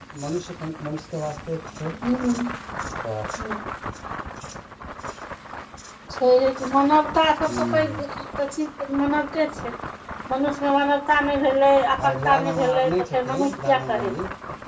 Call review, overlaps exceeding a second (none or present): present